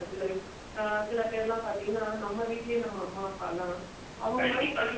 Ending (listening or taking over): listening